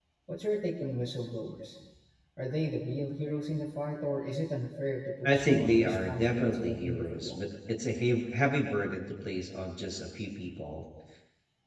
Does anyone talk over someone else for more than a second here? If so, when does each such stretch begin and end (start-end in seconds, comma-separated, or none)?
5.2-7.4